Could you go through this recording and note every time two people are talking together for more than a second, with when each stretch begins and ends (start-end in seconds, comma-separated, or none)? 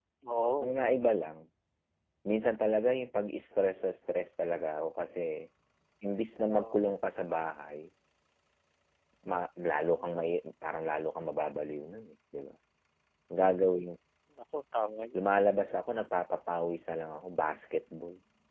none